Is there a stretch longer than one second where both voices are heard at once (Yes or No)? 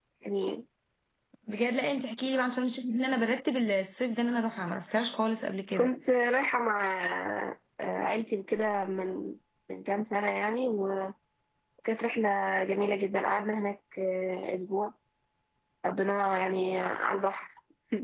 No